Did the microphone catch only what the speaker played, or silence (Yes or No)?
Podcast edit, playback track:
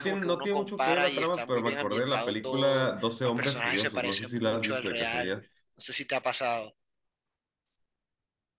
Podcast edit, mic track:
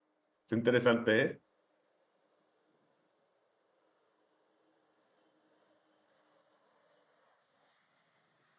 No